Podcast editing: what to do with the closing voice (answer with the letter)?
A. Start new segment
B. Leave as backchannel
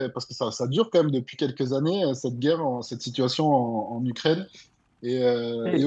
A